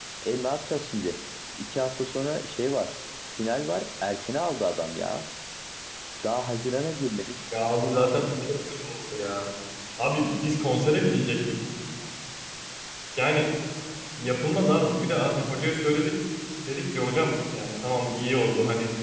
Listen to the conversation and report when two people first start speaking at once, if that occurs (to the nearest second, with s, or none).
none